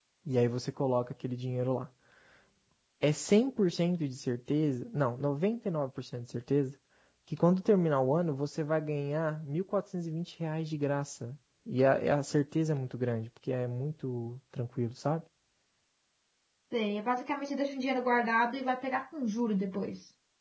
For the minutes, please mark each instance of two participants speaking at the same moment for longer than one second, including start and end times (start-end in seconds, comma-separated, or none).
none